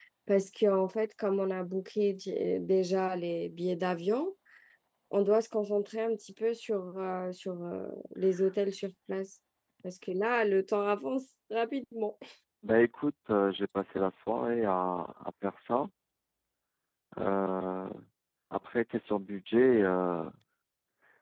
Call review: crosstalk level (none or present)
none